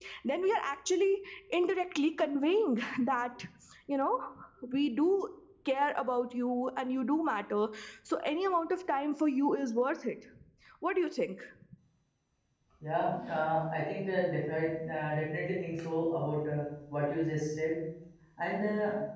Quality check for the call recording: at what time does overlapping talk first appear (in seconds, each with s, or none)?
none